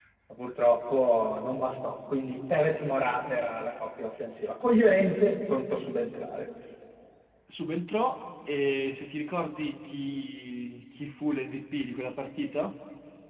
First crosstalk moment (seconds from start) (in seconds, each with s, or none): none